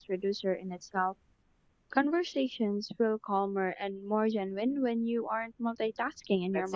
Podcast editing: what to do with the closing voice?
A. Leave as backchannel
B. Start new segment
B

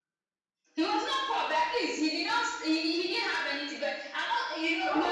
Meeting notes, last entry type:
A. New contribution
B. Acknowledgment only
A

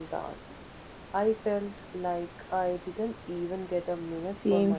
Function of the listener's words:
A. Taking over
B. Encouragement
A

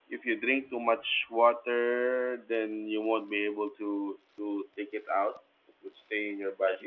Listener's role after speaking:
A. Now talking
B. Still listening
B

